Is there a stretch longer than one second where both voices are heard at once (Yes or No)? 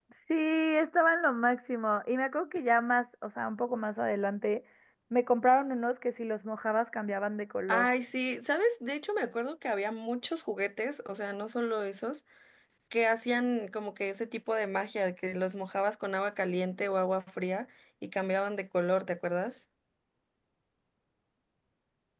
No